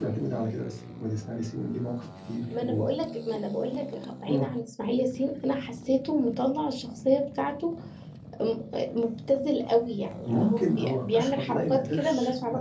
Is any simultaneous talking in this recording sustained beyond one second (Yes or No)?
Yes